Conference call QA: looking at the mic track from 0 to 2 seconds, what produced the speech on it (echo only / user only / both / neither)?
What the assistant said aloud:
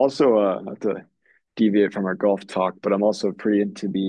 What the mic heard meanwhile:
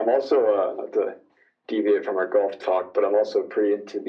echo only